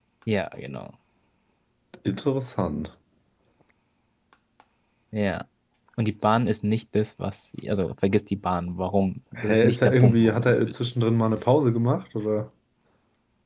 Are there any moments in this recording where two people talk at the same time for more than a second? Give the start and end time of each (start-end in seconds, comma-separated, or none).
9.4-10.9